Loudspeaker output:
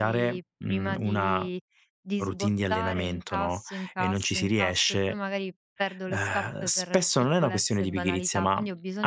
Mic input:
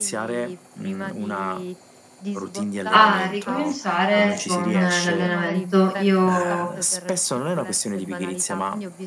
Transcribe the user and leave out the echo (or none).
a ricominciare con l'allenamento. Io